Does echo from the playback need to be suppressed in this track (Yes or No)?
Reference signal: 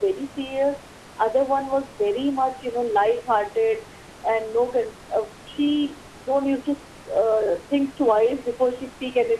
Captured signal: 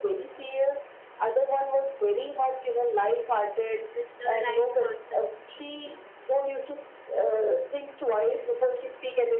Yes